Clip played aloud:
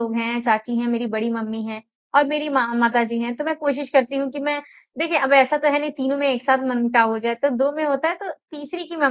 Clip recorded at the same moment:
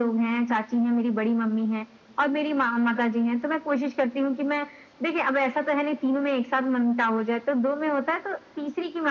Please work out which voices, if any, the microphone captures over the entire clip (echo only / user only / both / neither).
echo only